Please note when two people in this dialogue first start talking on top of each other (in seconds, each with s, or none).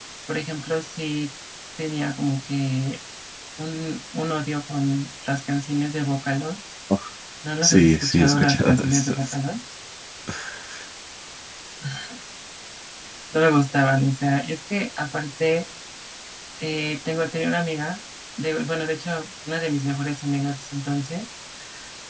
7.6 s